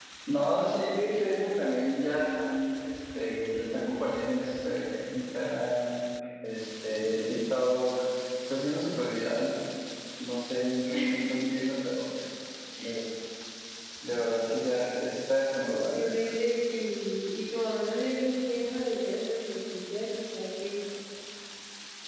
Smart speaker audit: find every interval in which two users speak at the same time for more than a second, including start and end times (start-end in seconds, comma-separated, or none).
none